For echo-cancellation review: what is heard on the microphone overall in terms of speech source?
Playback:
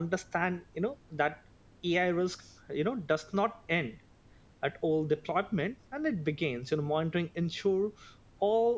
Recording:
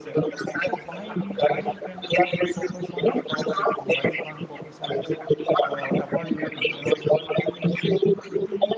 both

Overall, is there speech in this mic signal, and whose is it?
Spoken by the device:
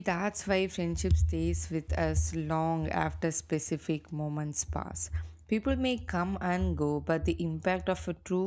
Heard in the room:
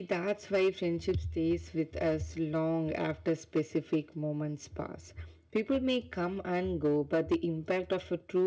echo only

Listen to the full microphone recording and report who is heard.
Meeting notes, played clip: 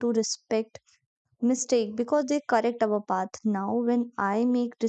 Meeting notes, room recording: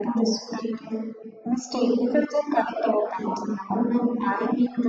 echo only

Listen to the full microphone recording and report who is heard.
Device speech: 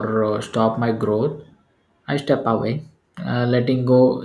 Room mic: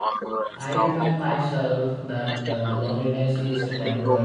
both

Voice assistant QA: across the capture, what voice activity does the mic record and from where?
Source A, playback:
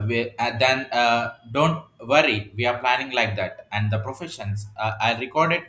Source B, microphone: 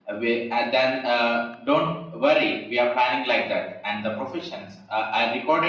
echo only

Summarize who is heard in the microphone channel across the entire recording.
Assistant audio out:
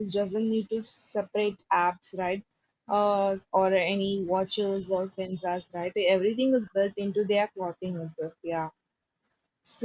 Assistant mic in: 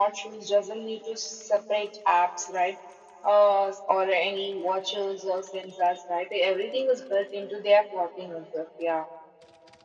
echo only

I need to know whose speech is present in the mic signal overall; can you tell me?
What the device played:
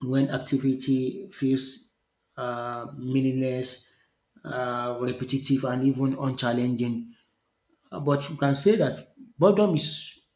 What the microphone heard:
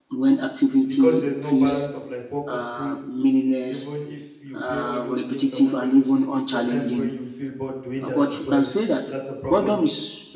both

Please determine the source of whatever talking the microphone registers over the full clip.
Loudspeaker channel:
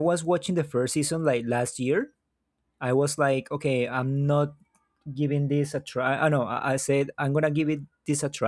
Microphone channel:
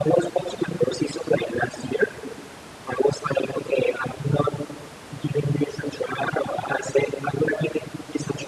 echo only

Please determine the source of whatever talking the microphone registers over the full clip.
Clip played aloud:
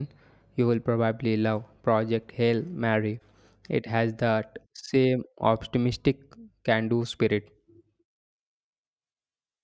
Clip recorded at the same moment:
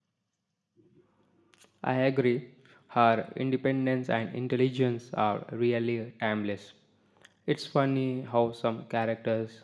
user only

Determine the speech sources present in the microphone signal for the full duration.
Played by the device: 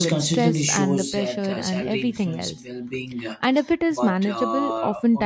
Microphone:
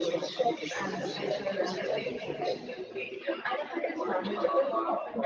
both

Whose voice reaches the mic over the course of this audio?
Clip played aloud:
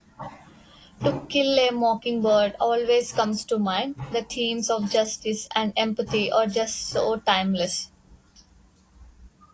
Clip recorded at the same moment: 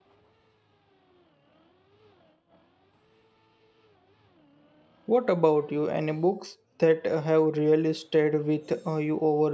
user only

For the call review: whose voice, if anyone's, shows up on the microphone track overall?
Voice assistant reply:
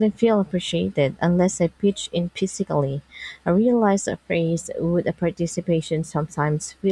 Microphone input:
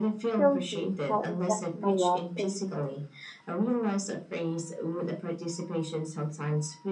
both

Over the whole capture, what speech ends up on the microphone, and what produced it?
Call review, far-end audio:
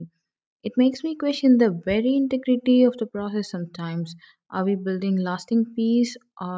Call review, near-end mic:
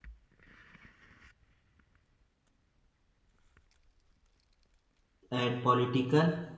user only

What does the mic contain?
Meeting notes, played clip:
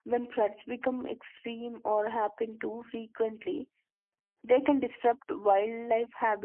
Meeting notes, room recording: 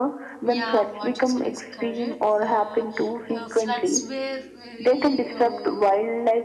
both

